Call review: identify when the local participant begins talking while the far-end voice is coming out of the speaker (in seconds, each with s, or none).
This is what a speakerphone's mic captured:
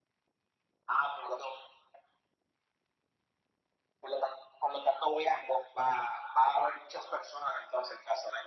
none